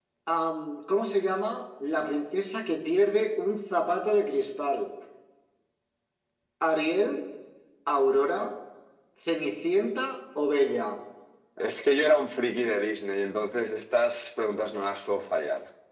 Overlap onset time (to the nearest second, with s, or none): none